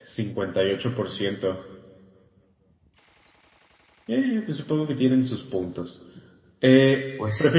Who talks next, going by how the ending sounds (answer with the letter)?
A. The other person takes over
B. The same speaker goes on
B